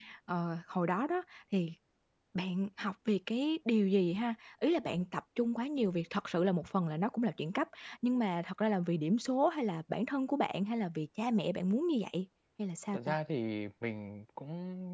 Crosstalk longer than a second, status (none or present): none